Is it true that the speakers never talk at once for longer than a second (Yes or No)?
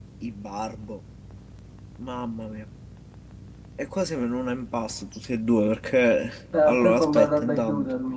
No